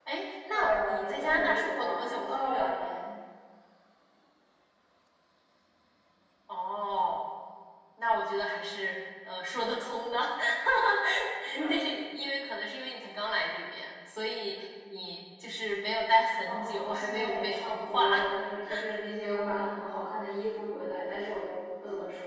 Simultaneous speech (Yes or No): Yes